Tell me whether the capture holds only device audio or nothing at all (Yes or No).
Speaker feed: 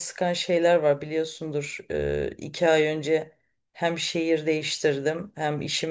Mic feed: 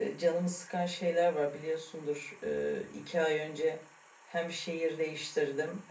Yes